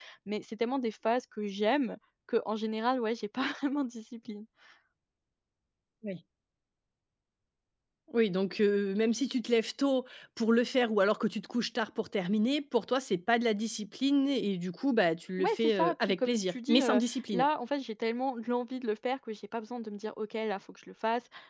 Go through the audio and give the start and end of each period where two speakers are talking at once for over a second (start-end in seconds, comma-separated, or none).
15.4-17.4